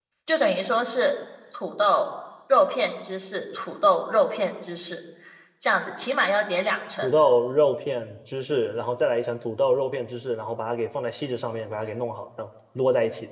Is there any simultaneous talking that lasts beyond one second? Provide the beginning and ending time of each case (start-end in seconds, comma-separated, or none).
none